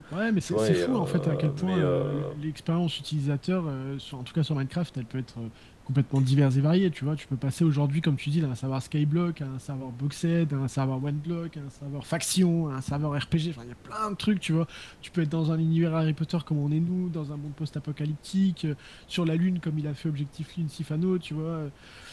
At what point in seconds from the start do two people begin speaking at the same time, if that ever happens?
0.5 s

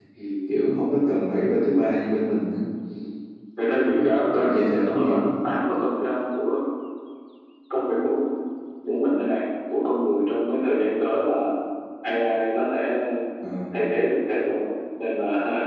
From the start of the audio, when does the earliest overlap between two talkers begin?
3.9 s

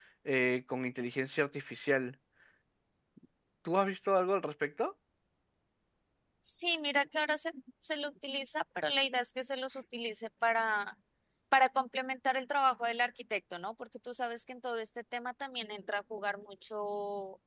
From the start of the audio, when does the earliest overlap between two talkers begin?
none

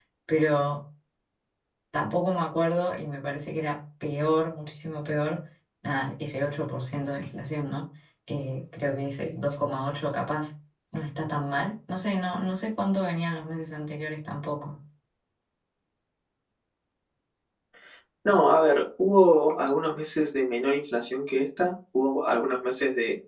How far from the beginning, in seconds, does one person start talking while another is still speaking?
none

